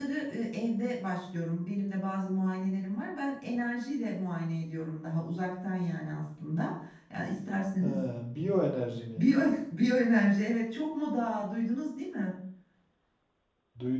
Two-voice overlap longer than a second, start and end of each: none

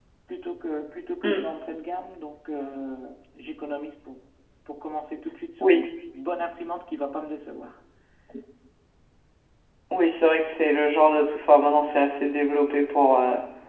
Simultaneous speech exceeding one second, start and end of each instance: none

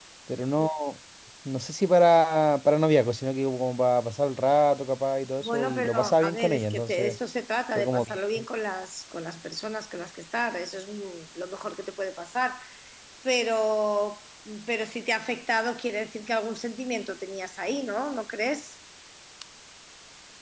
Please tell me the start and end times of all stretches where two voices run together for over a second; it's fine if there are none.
5.4-7.2

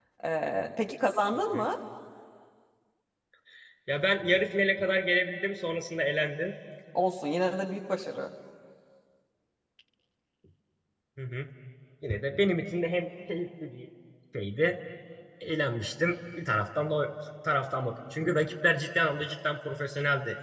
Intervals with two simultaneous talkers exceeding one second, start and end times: none

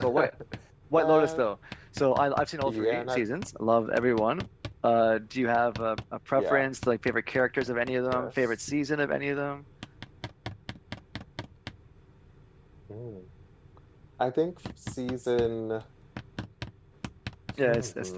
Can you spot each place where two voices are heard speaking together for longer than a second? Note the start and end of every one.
none

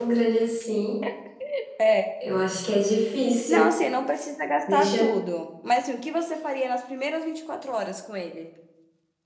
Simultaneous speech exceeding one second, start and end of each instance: none

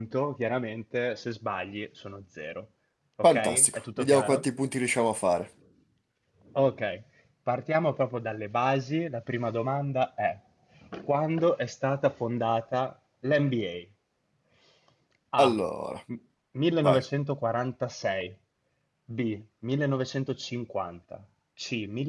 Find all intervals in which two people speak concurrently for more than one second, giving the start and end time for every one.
3.2-4.4

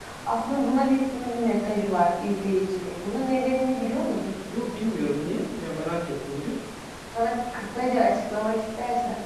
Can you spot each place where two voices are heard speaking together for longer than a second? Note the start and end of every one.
none

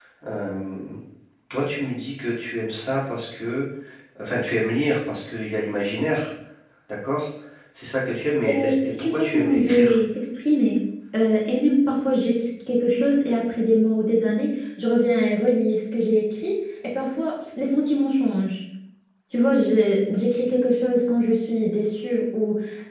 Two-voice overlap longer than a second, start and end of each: 8.4-10.0

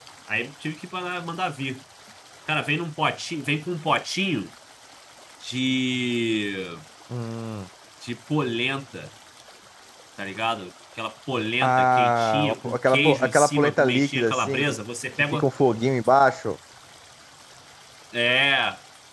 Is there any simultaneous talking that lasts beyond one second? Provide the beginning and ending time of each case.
11.6-14.7

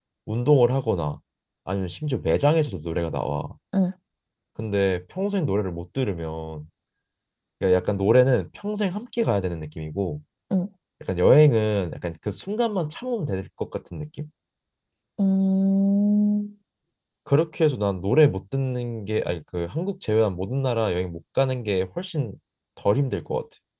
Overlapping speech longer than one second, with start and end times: none

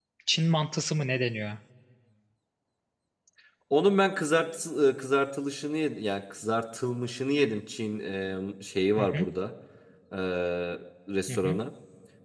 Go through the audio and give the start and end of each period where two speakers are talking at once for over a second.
none

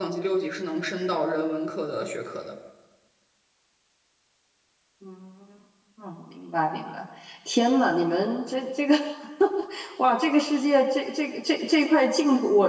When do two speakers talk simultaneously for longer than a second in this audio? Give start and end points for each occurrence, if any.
none

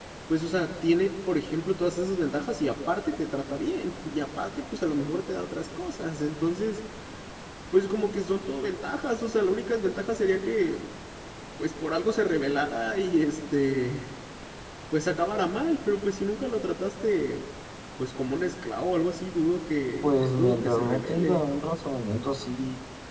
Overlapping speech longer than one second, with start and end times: 20.0-21.4

